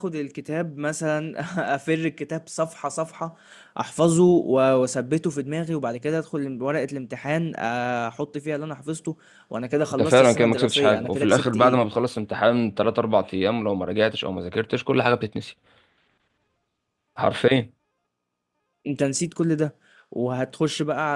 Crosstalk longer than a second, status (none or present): present